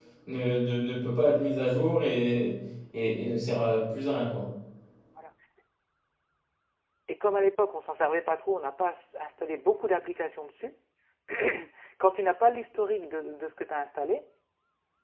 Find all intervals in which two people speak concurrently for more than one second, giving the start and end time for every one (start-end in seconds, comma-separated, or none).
none